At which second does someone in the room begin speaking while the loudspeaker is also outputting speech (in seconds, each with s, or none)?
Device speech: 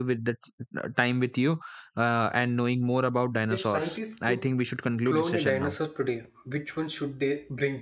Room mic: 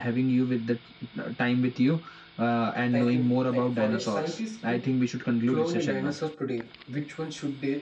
2.9 s